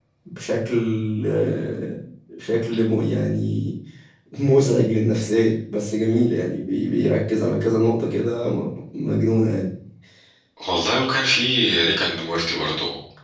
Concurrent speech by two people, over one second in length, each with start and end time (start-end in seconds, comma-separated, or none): none